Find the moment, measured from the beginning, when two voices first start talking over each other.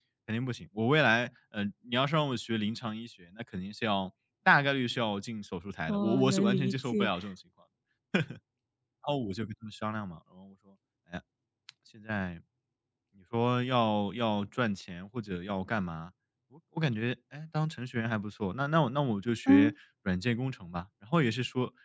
5.9 s

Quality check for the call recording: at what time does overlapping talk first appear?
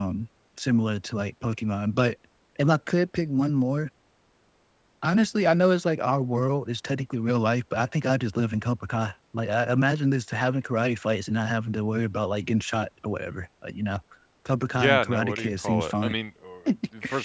14.7 s

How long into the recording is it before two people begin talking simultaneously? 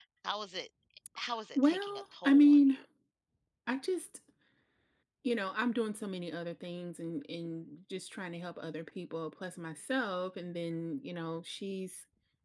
1.6 s

